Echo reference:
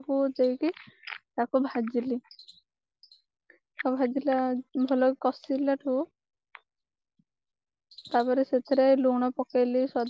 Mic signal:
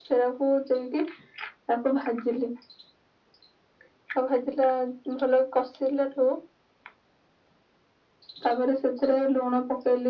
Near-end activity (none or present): none